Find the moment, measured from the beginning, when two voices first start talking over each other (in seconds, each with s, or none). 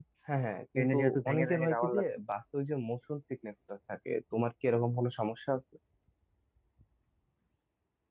0.8 s